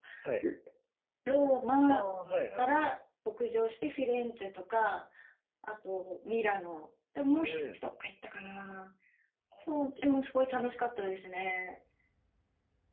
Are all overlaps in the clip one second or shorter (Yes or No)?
Yes